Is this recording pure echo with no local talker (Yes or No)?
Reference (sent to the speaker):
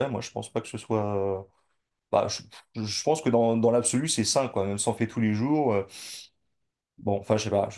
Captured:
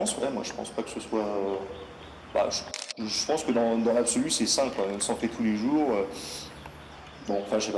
Yes